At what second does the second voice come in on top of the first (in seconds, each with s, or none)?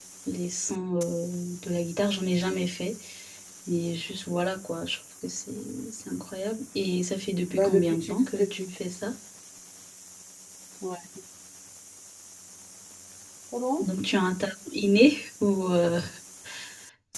7.5 s